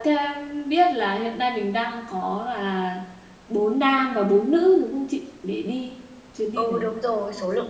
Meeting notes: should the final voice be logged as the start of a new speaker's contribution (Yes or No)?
Yes